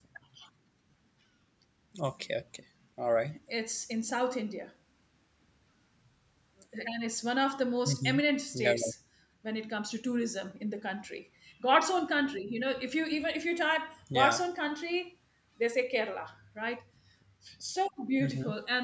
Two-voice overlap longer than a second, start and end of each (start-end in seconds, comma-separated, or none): none